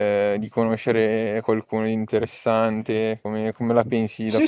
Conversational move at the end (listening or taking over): taking over